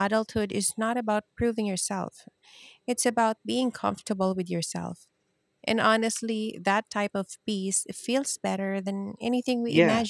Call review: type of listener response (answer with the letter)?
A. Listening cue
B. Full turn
B